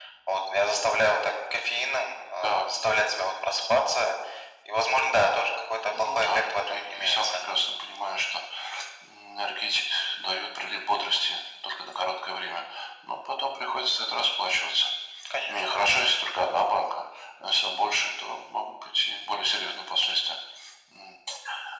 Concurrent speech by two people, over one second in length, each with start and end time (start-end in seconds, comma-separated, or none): 5.9-7.4